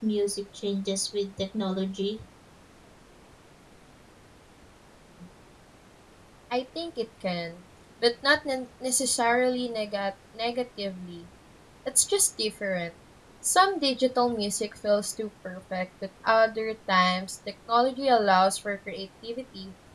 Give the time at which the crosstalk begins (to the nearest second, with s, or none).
none